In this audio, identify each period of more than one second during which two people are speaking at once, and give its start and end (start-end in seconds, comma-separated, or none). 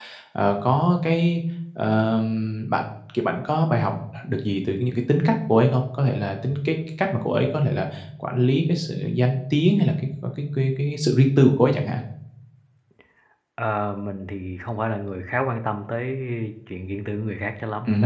none